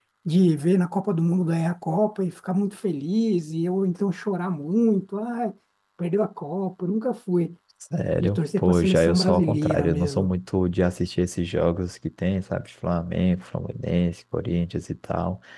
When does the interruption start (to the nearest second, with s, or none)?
8 s